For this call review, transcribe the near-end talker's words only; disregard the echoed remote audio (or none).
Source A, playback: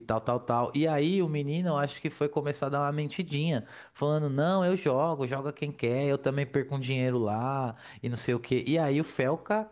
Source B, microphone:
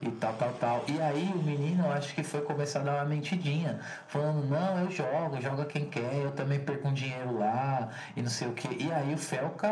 none